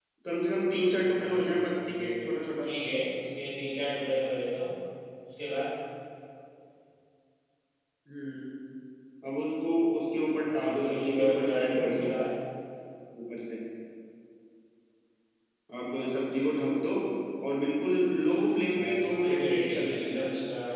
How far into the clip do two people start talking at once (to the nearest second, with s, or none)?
1 s